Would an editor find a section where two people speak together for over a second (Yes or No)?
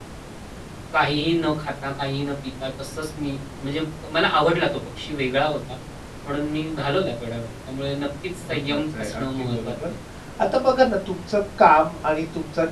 Yes